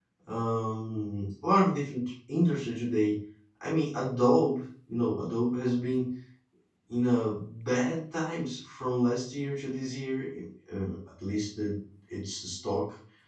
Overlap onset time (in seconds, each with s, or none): none